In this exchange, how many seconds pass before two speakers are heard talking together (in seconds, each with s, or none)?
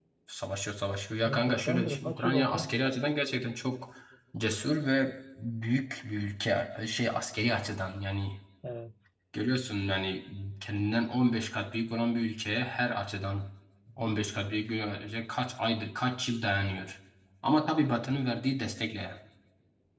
1.3 s